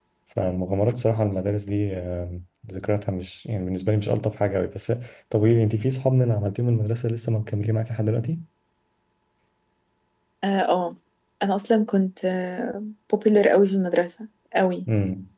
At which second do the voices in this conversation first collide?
none

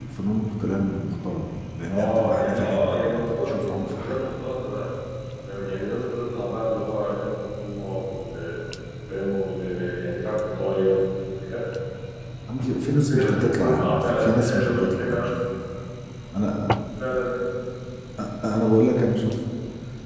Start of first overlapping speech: 1.9 s

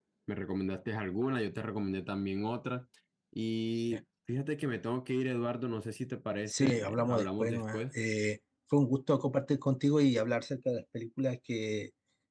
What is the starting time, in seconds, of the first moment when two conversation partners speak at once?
6.5 s

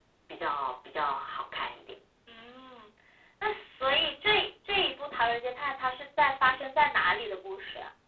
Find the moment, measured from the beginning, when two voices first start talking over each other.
none

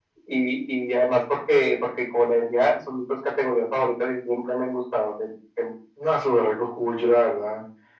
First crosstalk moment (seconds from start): none

